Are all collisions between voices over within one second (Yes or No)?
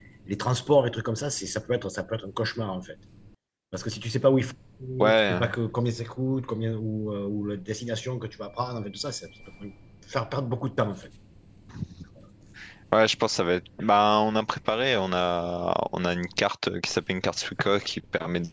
Yes